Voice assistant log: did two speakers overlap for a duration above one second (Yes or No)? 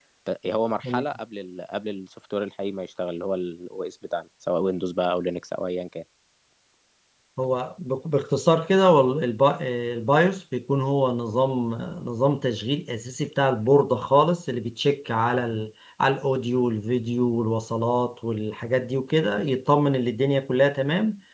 No